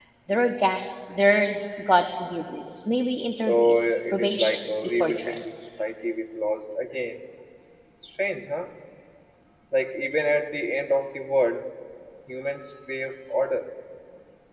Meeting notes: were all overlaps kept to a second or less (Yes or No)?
No